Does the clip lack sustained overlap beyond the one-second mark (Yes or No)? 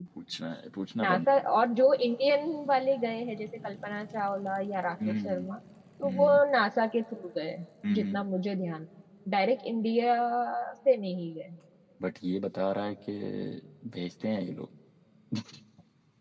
Yes